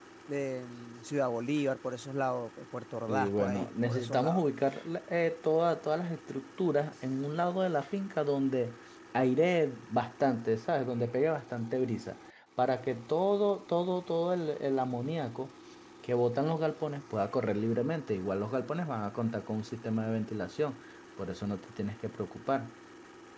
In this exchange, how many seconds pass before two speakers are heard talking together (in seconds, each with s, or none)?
3.1 s